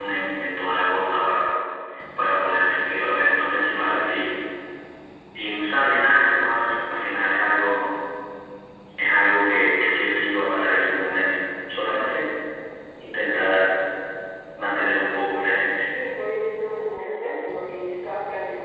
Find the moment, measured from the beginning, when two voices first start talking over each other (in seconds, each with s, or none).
none